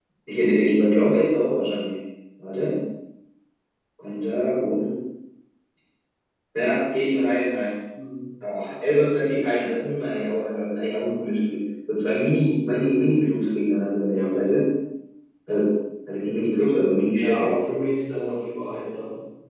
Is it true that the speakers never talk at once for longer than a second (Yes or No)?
Yes